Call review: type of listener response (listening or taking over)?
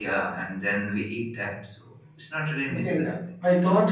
taking over